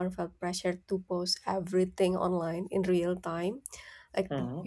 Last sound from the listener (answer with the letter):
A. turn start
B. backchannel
B